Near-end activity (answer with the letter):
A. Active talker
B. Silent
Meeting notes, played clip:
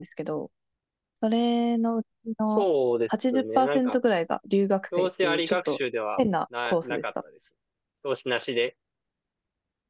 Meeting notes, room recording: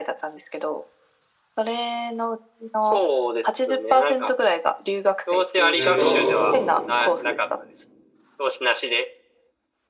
A